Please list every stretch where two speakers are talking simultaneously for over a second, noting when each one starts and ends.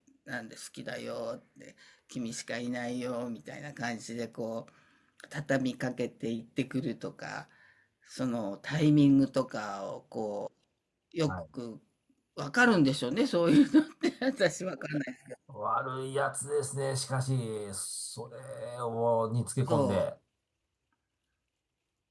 none

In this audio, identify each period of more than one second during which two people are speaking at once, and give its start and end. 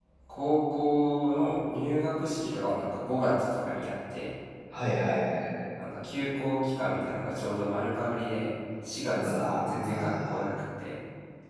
9.1-10.5

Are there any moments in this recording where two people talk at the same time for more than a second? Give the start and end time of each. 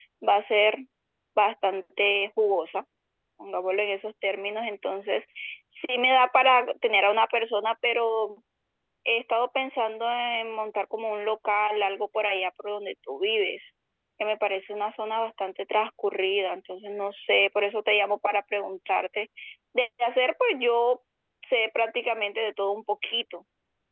none

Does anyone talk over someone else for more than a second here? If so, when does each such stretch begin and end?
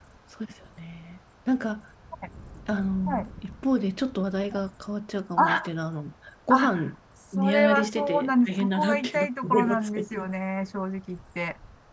7.3-10.3

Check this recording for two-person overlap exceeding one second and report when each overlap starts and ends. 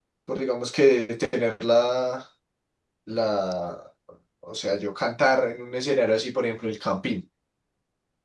none

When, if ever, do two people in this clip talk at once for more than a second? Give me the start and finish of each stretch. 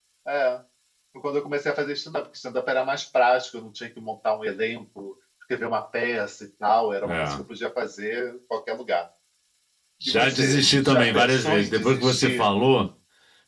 10.1-12.5

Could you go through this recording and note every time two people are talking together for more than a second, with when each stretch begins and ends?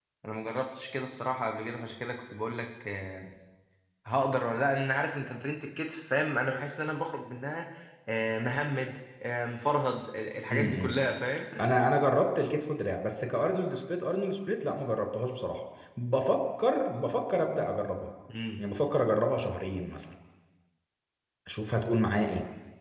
none

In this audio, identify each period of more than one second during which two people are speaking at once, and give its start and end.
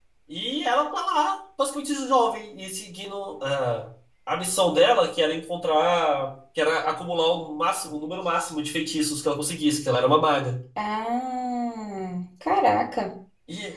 none

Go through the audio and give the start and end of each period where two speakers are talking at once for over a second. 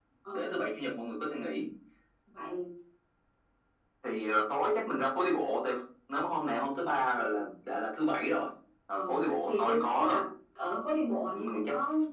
8.9-10.2

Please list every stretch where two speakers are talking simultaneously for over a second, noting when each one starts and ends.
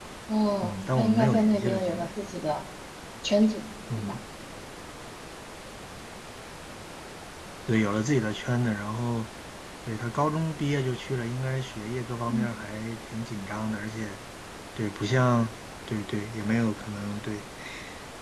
0.6-2.1

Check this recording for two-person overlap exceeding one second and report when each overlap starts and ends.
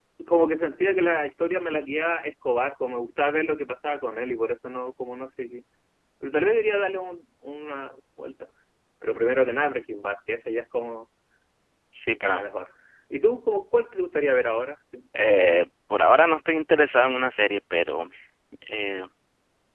none

